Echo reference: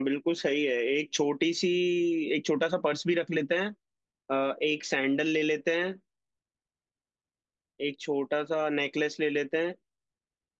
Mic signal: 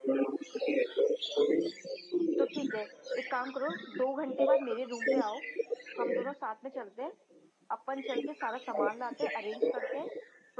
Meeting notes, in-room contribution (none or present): present